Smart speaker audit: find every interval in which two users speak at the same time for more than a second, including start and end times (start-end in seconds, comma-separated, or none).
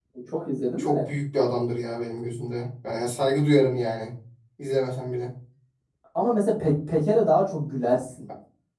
none